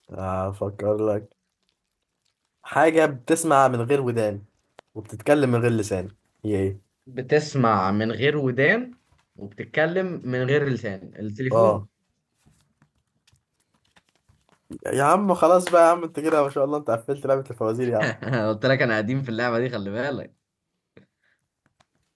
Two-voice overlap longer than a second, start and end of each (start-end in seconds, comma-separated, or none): none